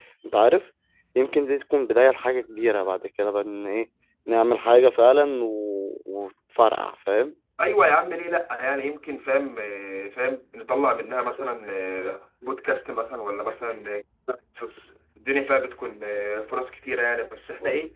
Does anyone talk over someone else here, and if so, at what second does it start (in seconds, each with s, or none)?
none